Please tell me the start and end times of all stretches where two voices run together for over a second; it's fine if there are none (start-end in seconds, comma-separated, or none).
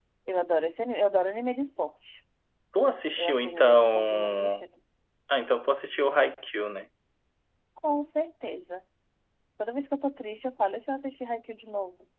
3.2-4.7